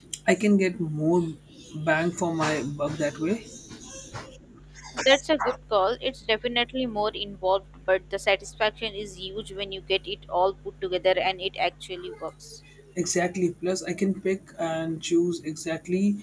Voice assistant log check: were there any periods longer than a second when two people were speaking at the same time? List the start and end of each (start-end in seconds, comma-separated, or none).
none